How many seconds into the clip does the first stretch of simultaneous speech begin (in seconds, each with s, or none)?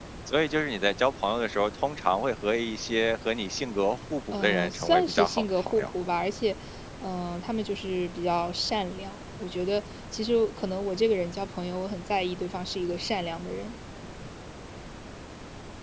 4.3 s